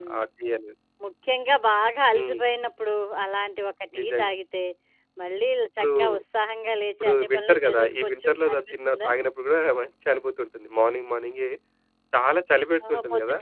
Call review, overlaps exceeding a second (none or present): present